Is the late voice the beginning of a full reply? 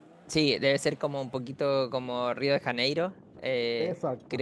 No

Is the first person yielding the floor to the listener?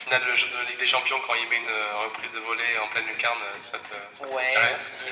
Yes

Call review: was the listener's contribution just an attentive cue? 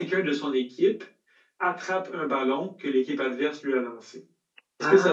No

